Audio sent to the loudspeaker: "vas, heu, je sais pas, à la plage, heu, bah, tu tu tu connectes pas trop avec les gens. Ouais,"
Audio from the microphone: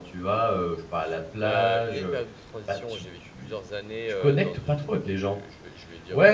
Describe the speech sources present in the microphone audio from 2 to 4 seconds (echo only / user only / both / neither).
both